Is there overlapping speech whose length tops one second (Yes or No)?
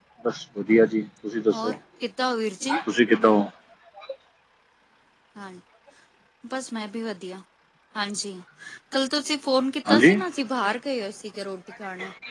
No